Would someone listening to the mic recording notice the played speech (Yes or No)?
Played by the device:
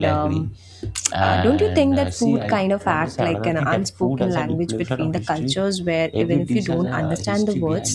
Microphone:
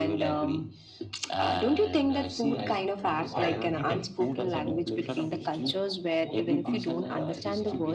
Yes